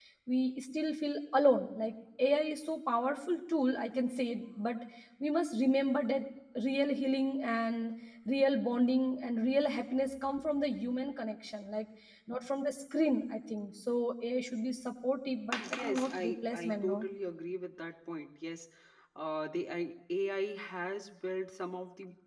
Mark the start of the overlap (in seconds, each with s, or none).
15.5 s